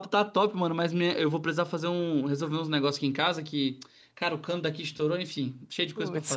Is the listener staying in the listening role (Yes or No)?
No